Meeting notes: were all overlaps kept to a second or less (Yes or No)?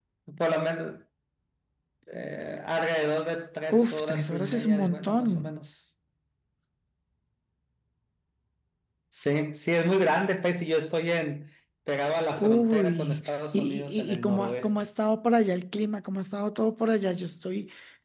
No